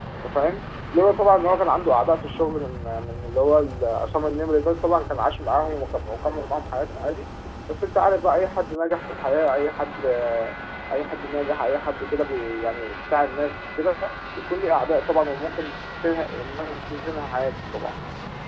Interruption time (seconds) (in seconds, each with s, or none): none